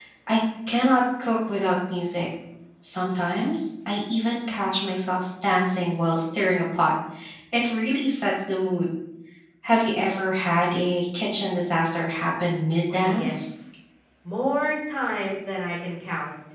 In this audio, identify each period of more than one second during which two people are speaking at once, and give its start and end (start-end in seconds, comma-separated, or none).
none